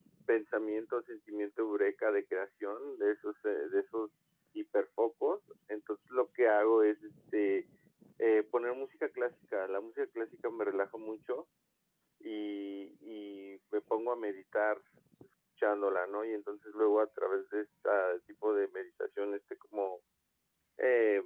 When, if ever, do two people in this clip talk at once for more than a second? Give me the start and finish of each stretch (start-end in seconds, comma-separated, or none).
none